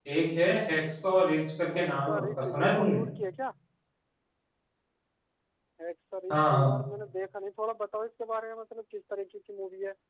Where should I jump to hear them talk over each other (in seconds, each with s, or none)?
1.7 s